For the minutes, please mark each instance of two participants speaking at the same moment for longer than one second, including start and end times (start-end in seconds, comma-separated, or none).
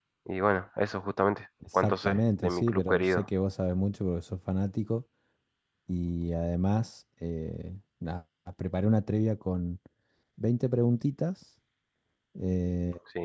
1.7-3.2